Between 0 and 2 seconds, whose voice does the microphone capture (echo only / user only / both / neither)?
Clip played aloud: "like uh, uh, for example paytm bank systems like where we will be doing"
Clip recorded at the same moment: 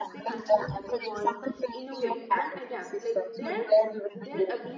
both